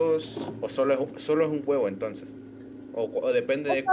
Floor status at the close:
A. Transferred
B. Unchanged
A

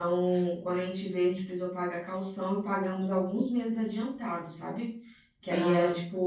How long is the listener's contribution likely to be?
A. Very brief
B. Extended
A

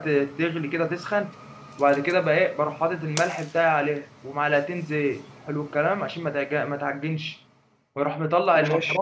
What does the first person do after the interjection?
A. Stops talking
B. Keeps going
B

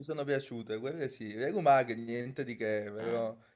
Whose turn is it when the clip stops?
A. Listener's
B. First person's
B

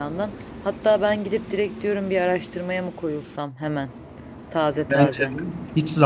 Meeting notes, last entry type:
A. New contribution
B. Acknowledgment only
A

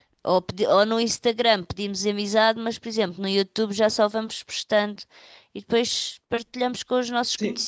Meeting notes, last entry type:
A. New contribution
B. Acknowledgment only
A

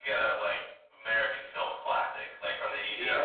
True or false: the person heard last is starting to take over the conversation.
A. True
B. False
B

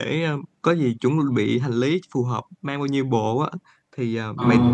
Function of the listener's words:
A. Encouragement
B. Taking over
A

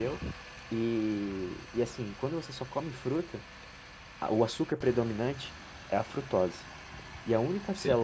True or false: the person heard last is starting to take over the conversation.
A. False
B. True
A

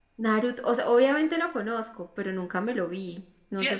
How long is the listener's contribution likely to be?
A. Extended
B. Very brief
A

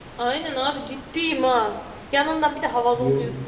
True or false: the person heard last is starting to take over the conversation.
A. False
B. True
A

